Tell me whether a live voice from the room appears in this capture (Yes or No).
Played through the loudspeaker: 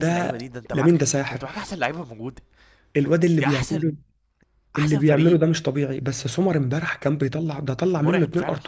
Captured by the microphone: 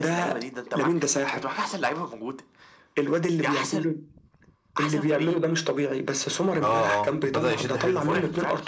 Yes